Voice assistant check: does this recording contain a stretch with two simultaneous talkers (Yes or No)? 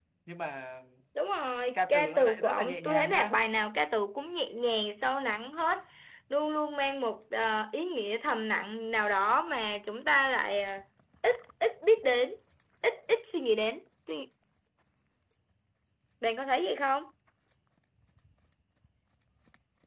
Yes